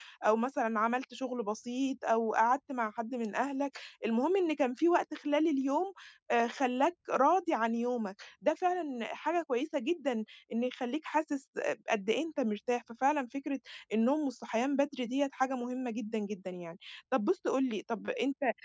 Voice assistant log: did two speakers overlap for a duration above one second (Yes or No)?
No